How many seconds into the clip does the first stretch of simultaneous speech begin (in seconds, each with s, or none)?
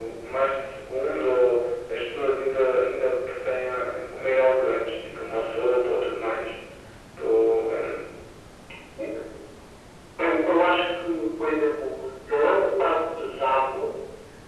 none